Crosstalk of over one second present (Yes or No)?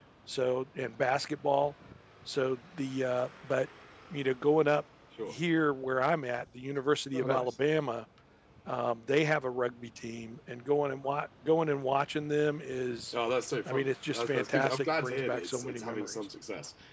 Yes